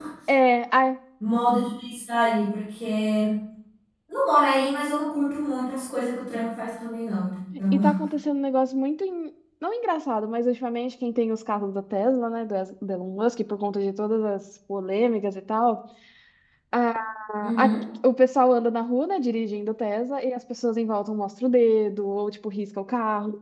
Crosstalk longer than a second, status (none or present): none